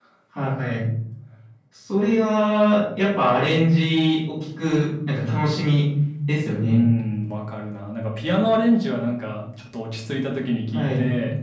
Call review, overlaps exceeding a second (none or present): none